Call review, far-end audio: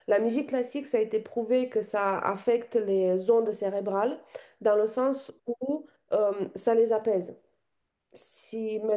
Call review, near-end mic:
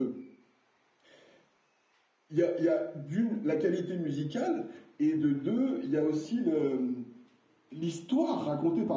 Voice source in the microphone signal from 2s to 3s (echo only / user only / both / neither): user only